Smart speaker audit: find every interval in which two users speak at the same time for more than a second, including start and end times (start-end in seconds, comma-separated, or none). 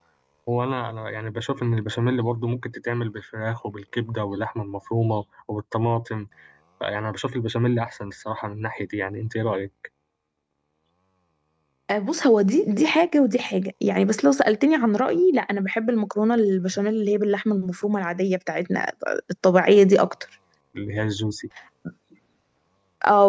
none